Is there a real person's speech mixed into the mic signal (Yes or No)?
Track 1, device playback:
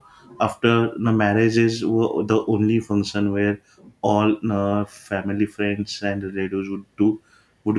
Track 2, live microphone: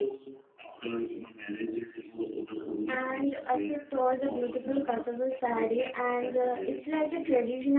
Yes